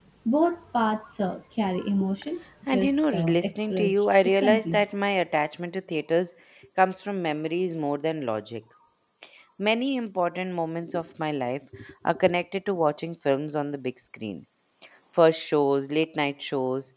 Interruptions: present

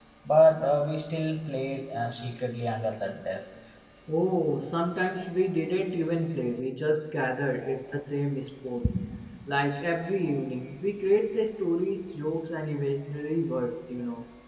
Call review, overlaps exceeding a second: none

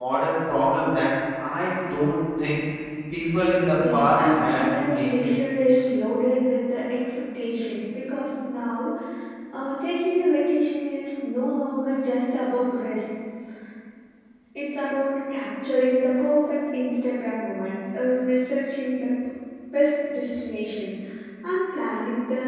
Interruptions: present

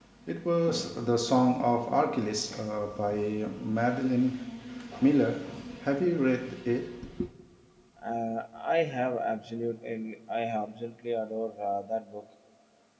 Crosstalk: none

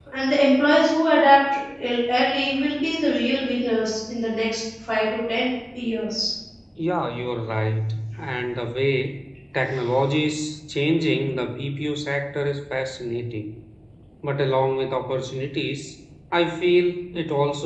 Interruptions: none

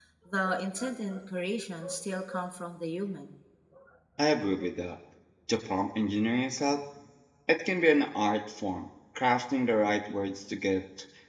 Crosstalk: none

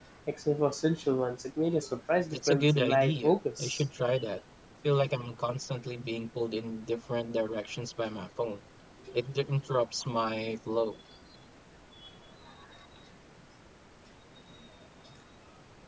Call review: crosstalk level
present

